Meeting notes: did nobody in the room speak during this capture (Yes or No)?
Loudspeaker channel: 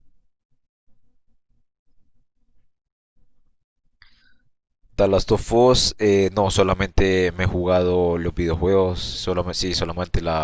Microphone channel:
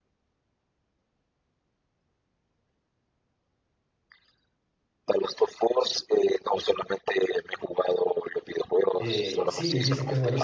No